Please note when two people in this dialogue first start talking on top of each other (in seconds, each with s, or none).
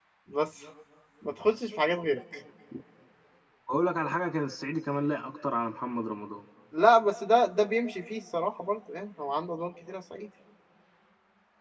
none